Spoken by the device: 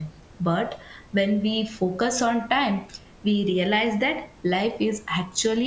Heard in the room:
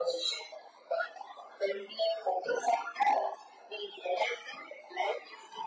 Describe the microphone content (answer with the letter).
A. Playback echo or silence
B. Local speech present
A